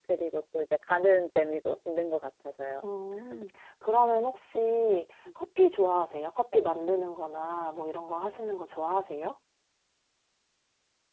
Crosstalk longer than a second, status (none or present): none